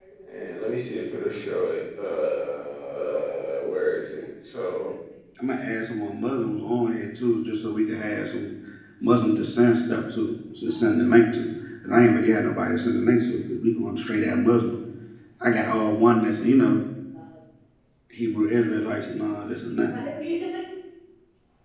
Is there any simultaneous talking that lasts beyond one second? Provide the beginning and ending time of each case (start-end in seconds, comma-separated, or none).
none